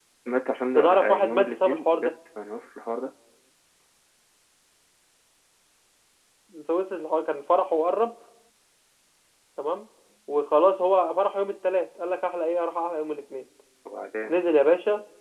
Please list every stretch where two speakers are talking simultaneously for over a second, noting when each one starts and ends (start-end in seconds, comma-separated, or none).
0.8-2.1